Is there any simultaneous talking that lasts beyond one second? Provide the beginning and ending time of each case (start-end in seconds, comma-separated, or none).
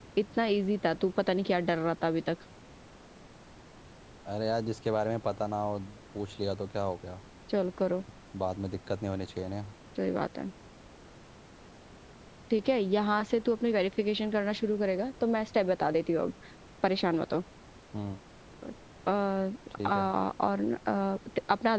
none